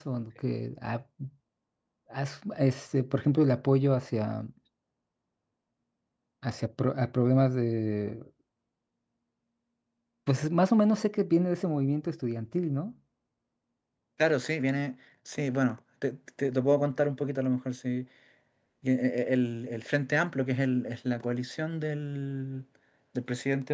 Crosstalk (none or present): none